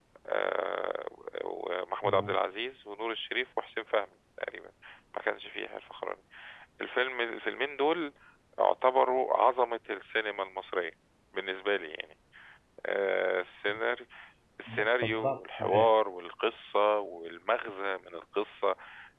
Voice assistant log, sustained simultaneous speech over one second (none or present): present